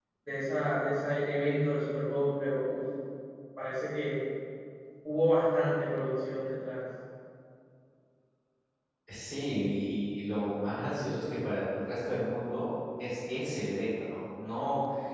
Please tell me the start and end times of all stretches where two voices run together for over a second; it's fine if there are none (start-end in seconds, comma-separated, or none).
none